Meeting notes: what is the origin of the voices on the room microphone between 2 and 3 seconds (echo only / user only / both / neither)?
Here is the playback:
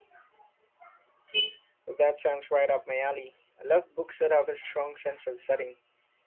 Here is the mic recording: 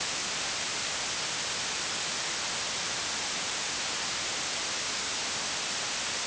neither